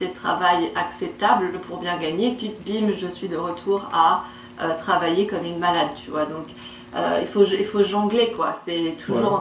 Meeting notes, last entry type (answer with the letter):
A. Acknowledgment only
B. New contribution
A